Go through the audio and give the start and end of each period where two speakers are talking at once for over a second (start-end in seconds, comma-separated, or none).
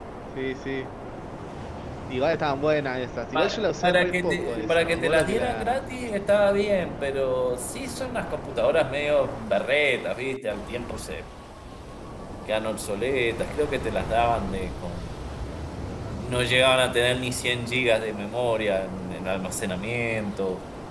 3.4-5.9